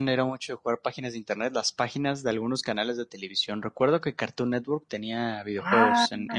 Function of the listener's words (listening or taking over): taking over